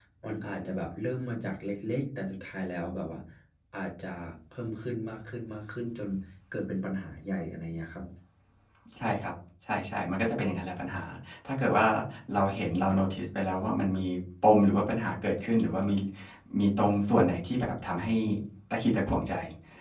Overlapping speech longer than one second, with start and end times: none

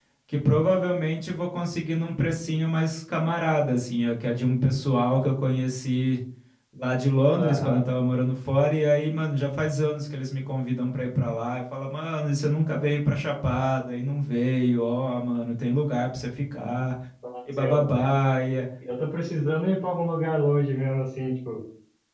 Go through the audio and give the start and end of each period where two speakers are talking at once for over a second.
none

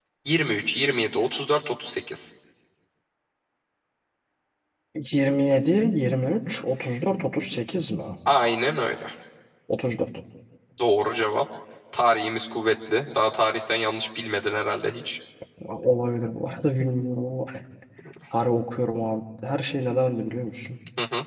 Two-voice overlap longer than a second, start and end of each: none

